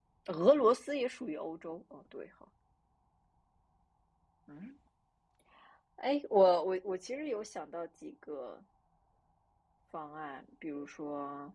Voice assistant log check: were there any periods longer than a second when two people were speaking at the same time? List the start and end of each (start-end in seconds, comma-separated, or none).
none